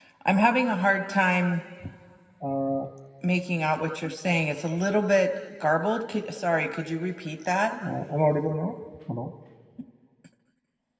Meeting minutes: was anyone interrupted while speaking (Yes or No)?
No